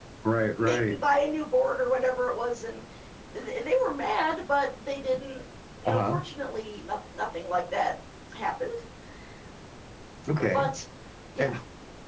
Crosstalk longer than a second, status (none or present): none